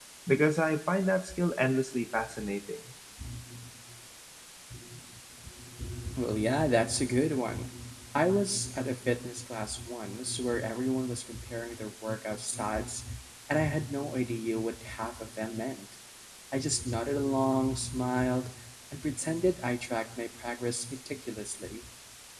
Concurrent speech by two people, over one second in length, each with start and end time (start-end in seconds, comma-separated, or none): none